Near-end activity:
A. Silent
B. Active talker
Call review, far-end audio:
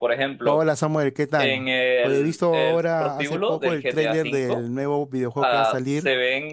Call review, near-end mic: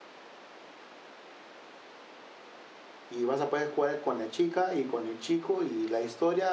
B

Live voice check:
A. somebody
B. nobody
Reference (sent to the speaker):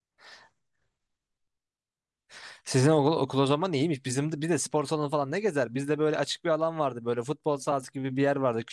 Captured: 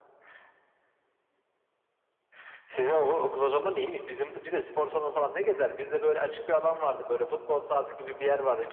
B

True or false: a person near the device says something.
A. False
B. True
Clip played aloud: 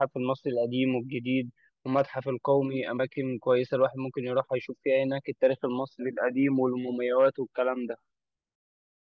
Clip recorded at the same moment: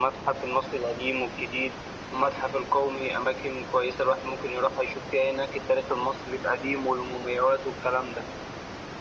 A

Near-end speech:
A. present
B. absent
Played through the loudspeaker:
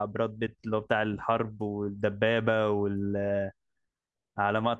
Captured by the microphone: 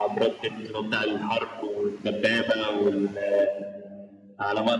B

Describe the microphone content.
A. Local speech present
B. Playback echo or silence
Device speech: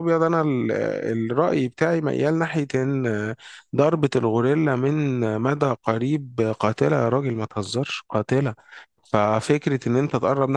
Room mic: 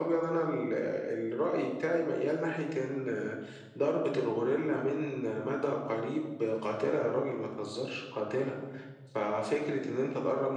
B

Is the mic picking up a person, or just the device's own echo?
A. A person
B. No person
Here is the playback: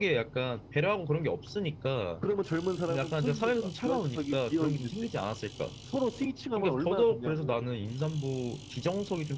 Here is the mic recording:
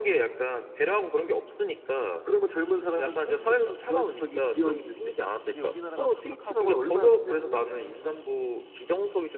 A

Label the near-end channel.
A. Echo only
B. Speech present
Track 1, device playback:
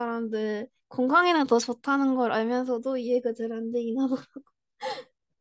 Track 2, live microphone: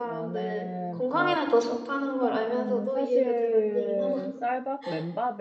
B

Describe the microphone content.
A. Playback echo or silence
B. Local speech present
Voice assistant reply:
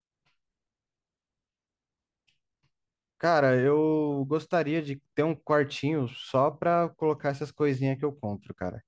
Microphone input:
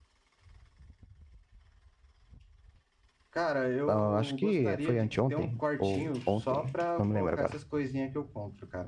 B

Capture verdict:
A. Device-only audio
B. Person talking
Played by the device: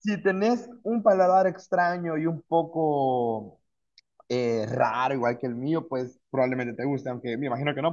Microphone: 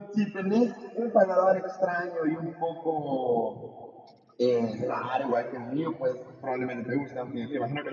A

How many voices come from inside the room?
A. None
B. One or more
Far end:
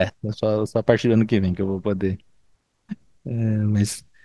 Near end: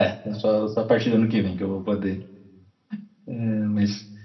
A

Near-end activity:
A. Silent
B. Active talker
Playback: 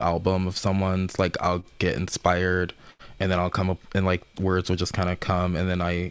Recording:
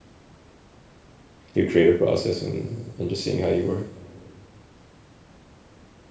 B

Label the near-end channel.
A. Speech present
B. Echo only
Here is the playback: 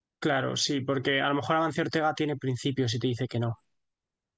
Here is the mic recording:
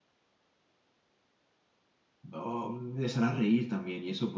A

